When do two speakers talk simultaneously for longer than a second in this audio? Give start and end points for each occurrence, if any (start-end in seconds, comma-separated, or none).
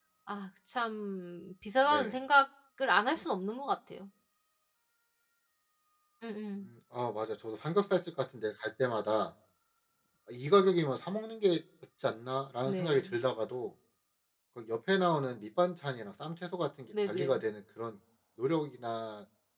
none